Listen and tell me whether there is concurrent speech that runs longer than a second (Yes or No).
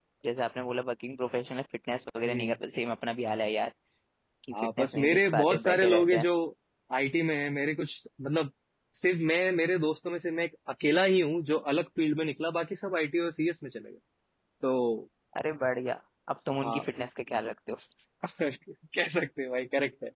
Yes